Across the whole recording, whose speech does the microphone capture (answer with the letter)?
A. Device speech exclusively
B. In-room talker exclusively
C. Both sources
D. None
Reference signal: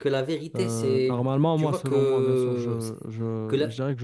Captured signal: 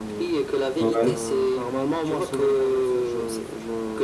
C